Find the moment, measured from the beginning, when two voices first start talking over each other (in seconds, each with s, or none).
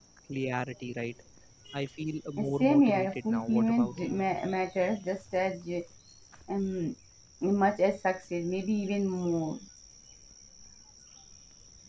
2.6 s